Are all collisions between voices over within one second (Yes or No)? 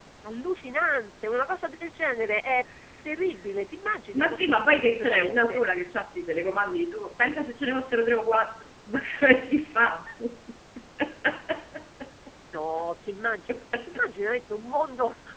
No